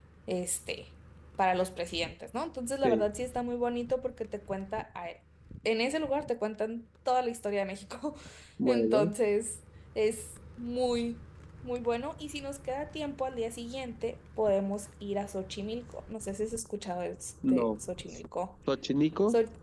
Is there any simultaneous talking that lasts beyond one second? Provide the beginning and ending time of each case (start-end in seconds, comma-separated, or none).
none